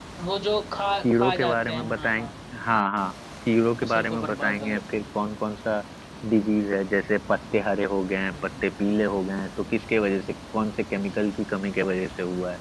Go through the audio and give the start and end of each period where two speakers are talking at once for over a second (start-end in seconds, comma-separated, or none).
1.0-2.3, 3.8-5.0